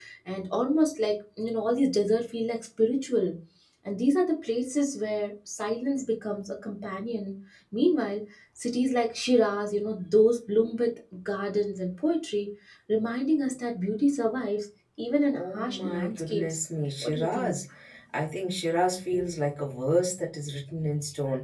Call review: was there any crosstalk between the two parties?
Yes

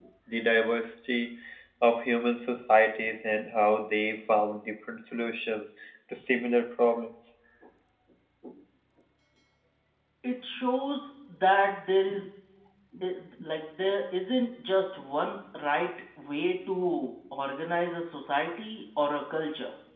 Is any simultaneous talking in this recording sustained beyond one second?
No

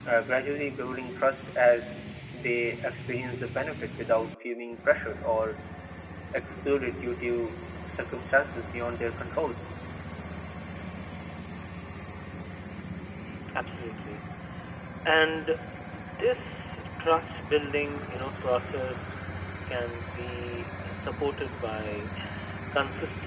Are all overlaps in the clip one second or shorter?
Yes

